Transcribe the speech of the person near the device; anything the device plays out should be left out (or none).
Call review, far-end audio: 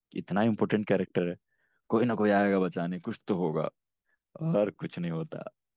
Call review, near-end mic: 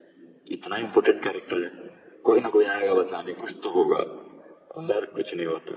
none